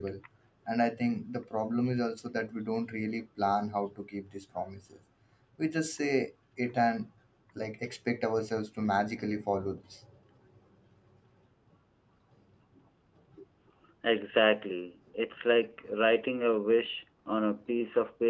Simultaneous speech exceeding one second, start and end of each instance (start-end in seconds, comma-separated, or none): none